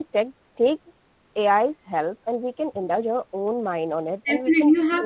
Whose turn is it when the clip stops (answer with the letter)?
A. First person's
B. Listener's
B